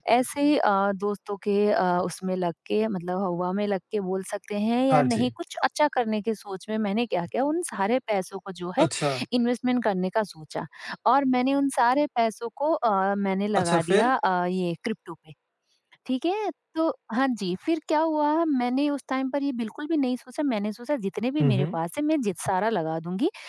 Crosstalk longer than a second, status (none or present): none